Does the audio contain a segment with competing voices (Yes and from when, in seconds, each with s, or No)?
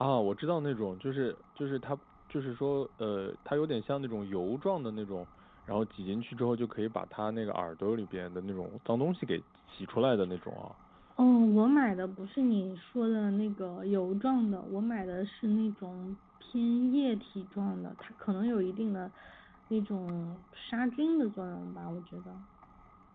No